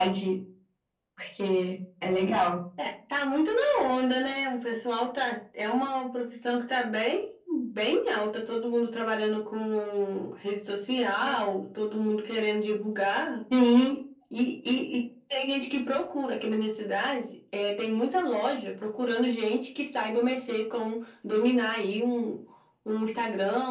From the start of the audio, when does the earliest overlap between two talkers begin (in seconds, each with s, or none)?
none